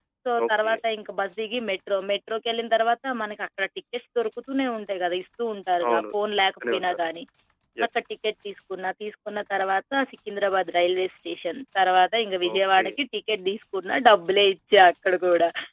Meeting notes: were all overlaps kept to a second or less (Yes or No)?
Yes